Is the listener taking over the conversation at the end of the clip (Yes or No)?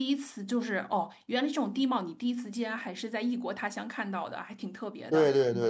Yes